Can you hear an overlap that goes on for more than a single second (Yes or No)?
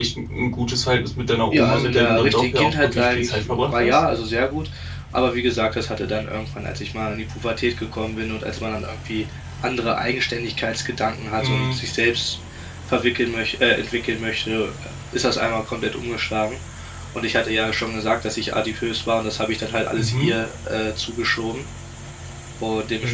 Yes